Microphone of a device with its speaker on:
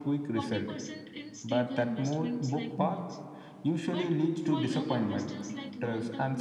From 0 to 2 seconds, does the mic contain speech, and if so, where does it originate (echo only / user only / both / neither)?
both